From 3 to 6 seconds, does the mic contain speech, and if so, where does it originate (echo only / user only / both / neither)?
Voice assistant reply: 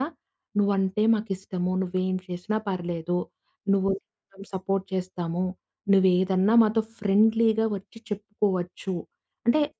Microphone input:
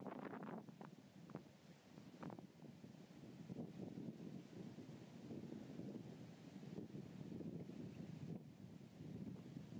neither